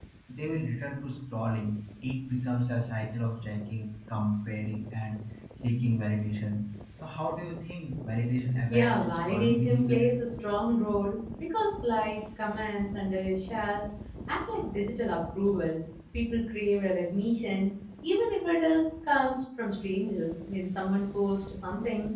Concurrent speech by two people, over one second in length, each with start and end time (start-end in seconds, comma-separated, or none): 8.7-10.1